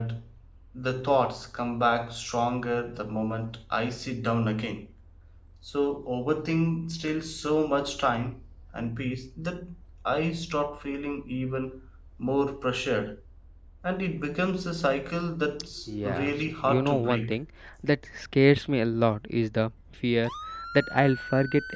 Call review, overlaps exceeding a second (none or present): present